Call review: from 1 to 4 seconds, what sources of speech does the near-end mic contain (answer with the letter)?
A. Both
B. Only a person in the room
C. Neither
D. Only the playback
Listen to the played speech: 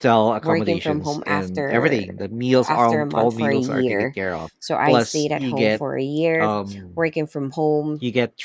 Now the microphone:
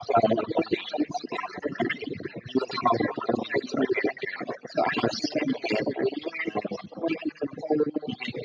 D